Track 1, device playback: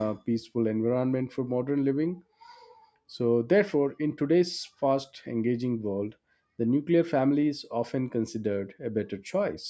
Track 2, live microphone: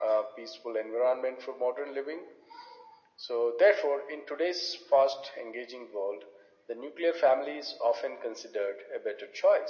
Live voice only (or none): none